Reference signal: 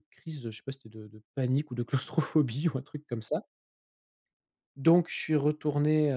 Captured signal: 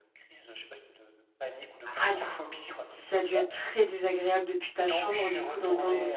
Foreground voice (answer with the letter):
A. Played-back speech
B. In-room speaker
B